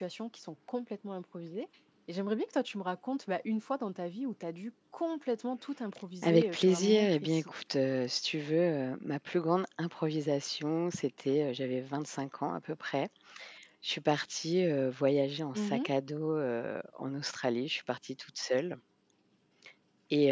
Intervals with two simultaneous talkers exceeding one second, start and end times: 6.2-7.5

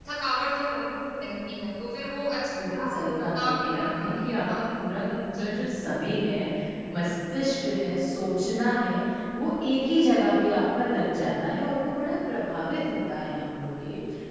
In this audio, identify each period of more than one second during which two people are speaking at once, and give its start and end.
2.6-4.7

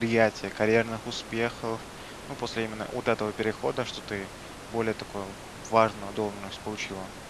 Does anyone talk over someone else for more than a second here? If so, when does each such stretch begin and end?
none

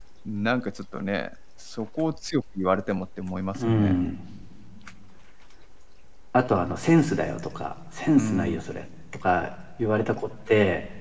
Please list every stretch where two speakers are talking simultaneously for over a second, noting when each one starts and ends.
none

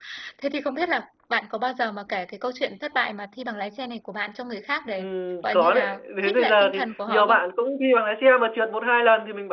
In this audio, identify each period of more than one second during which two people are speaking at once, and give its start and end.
5.4-7.4

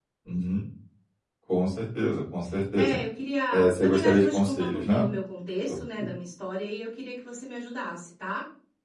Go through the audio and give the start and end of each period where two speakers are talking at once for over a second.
3.5-5.1

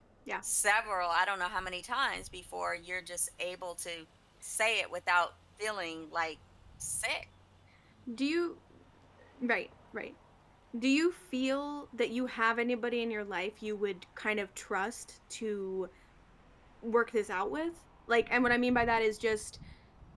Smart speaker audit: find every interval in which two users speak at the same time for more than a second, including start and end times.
none

